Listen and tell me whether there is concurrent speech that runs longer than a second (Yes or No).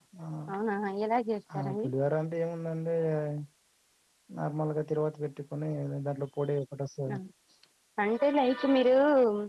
No